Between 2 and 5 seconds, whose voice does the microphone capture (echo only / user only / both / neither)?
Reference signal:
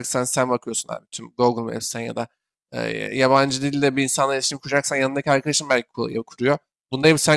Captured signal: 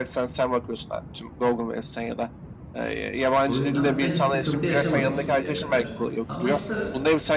both